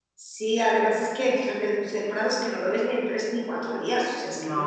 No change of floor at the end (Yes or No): Yes